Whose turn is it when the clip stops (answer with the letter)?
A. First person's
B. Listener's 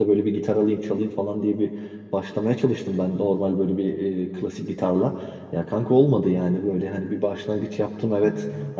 A